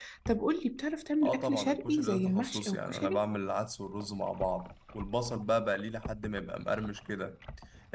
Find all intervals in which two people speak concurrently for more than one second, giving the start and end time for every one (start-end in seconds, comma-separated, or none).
1.2-3.2